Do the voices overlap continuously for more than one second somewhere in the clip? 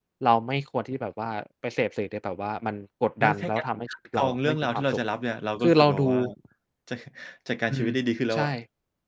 Yes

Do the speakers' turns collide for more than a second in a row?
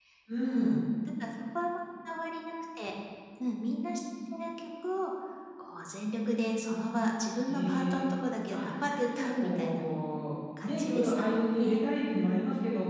Yes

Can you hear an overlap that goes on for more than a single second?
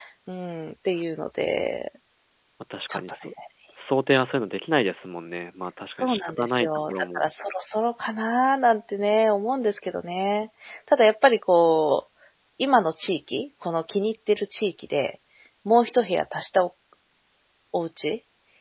Yes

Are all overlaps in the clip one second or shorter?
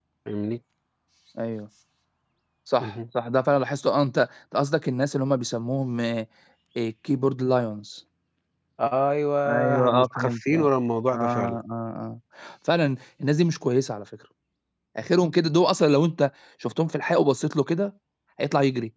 No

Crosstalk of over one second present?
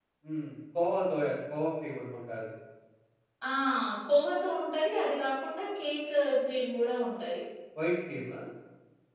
No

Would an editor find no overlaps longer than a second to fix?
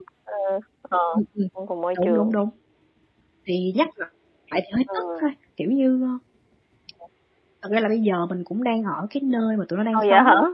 Yes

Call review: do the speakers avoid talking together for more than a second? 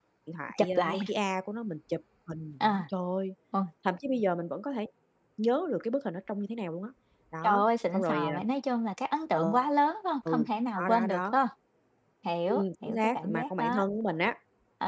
No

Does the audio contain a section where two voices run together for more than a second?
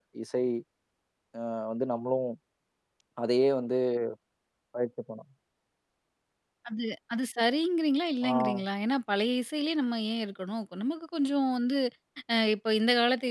No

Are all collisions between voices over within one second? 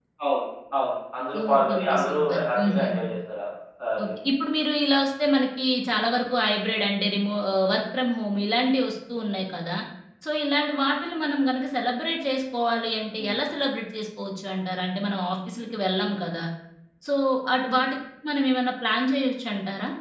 No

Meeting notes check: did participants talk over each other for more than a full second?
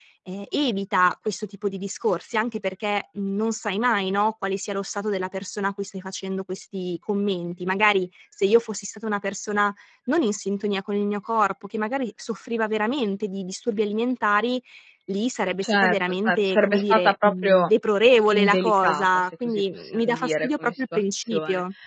Yes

